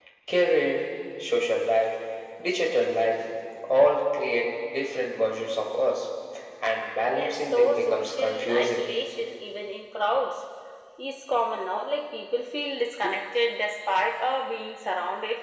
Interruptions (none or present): present